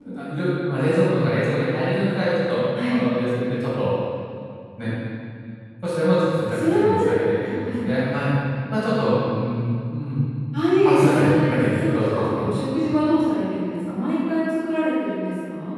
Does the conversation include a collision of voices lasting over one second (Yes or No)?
Yes